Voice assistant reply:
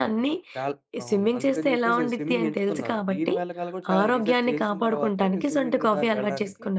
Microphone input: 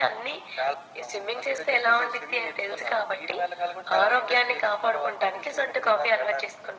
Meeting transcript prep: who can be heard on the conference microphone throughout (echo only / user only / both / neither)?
echo only